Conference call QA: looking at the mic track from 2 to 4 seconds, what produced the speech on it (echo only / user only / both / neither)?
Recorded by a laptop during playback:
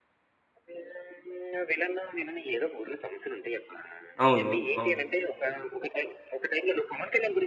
echo only